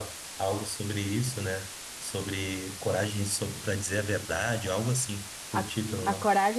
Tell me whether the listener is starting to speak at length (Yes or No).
Yes